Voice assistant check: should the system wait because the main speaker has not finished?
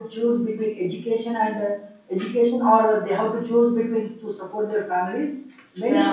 Yes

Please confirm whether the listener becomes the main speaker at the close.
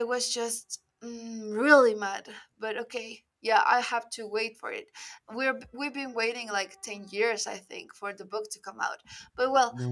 No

